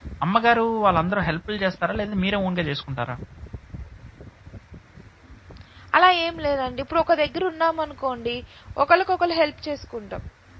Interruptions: none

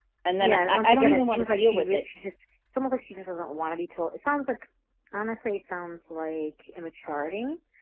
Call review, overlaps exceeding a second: present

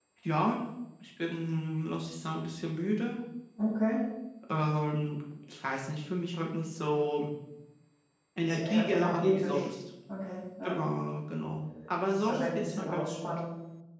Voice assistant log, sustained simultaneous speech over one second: present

